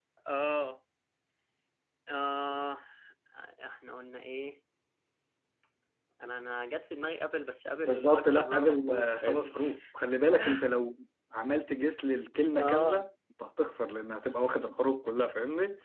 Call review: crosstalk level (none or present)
present